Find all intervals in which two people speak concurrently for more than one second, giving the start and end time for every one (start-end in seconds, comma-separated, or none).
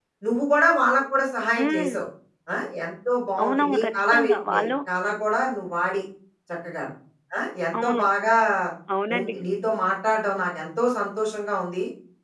3.4-4.7